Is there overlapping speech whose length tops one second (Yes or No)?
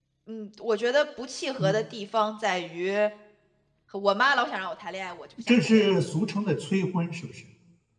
No